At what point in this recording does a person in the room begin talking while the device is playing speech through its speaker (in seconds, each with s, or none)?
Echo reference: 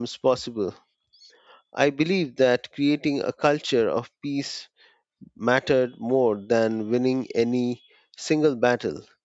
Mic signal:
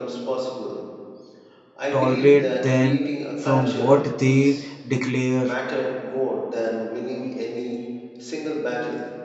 1.9 s